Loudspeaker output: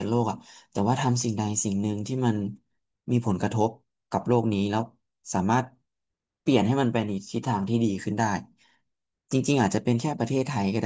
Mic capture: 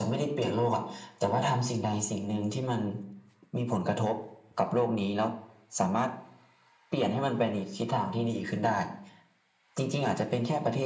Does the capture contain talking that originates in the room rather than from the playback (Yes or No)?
No